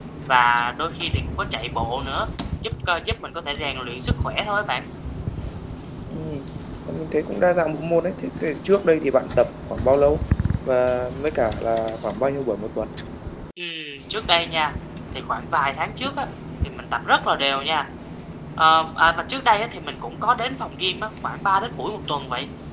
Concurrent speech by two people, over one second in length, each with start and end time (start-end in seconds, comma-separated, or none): none